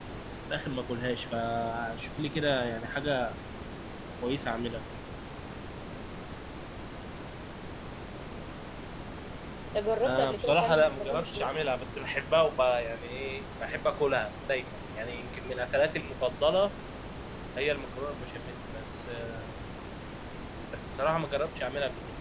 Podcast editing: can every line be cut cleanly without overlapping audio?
No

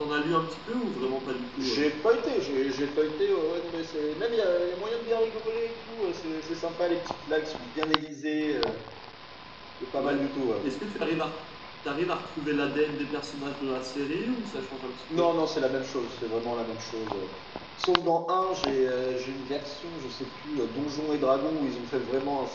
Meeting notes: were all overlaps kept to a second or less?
Yes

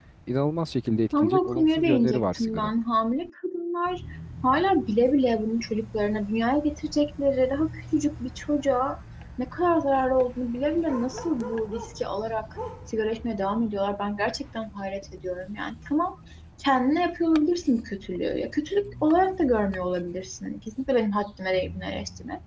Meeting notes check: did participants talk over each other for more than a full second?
Yes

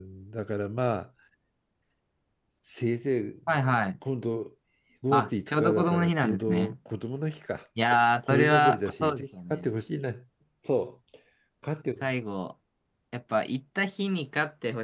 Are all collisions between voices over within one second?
No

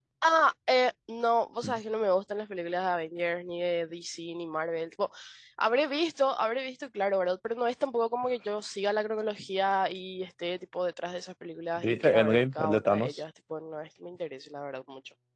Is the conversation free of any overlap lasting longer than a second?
No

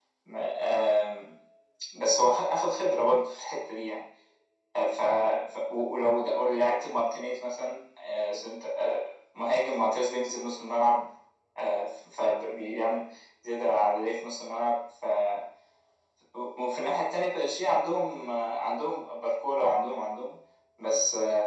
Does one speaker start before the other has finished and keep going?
No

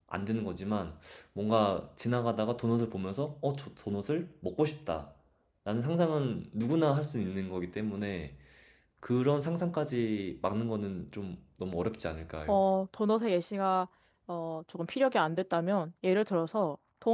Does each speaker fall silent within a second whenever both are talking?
Yes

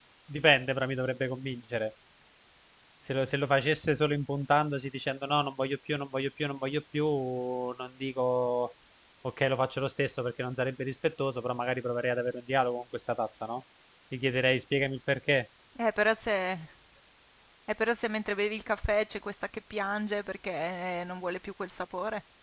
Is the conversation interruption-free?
Yes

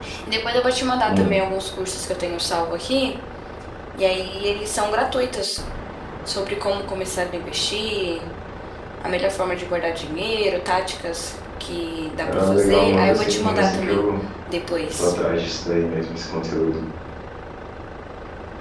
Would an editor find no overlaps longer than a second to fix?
No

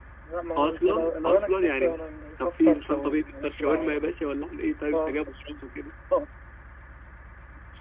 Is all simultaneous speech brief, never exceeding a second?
No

